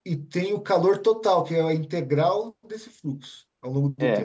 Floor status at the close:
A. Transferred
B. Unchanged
A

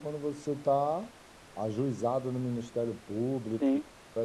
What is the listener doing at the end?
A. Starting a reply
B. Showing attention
B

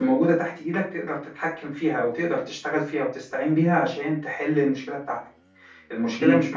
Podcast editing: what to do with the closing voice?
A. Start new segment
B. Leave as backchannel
B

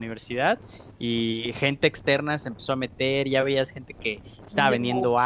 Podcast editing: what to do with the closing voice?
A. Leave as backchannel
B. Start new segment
A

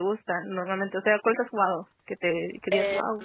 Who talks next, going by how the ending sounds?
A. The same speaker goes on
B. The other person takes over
B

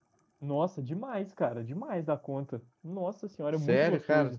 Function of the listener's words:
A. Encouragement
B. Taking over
B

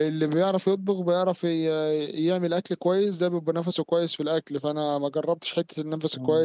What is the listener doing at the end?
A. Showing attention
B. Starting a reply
A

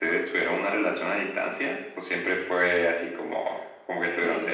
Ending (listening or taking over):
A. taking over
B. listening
A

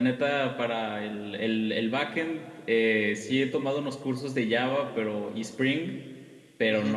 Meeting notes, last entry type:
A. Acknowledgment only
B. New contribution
A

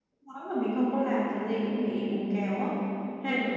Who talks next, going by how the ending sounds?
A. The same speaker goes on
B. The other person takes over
B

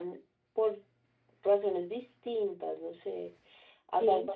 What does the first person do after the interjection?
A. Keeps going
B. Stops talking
A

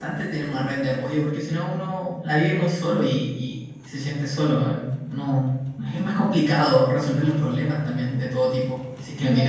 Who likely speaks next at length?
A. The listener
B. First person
A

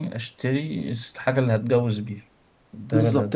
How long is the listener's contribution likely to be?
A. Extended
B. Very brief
A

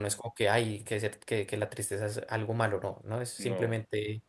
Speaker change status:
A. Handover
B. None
B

